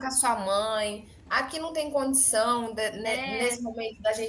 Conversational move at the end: listening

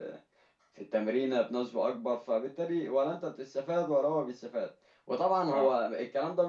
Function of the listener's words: listening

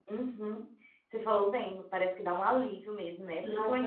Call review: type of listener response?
listening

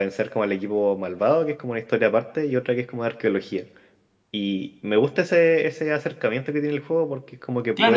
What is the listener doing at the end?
taking over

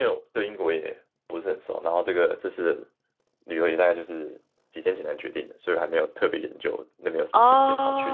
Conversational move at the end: taking over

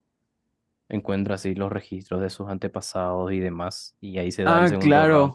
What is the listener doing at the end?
taking over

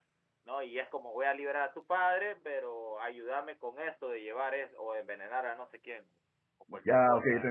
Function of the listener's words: taking over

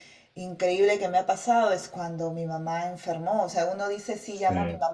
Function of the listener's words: listening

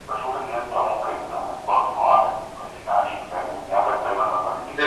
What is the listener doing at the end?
taking over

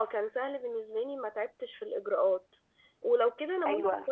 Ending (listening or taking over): listening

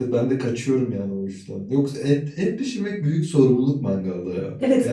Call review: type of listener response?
taking over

